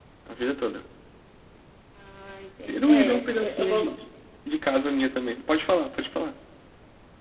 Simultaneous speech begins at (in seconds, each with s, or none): 2.7 s